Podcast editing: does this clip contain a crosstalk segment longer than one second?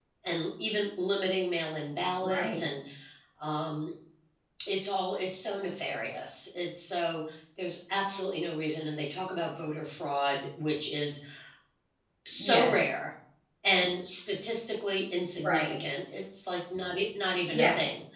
No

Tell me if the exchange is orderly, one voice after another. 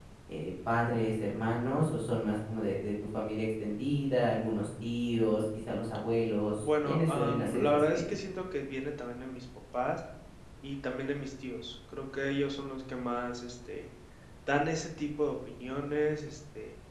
No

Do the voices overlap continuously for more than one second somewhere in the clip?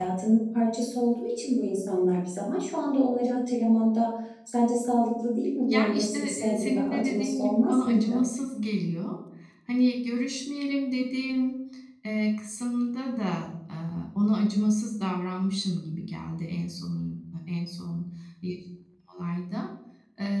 Yes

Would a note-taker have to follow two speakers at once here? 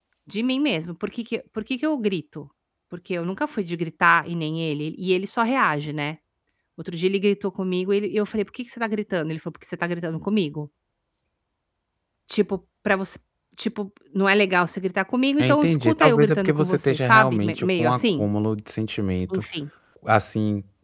Yes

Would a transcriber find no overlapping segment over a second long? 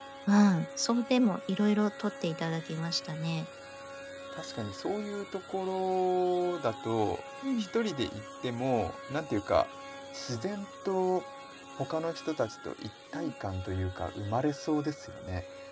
Yes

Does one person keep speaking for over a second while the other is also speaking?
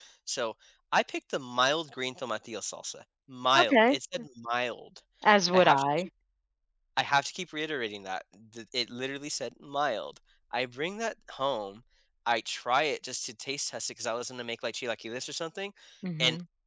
No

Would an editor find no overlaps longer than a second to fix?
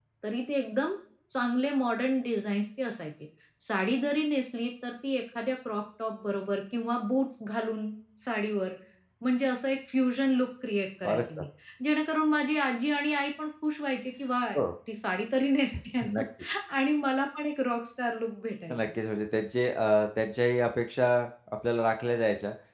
Yes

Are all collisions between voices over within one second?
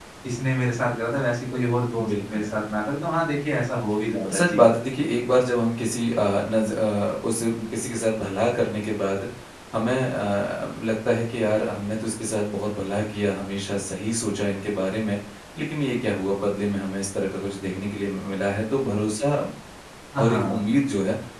Yes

